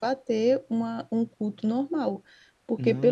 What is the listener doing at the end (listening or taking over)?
listening